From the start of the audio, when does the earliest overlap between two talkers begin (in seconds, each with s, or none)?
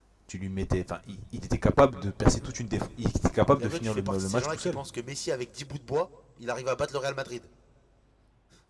3.6 s